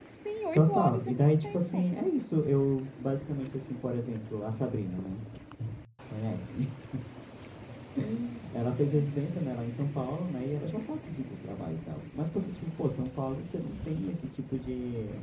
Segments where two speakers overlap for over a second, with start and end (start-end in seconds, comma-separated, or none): 0.6-1.8